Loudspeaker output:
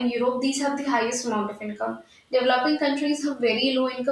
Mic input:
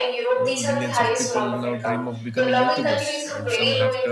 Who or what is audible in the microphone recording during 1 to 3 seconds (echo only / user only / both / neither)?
both